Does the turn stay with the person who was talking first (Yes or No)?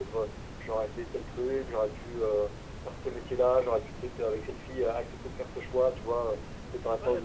No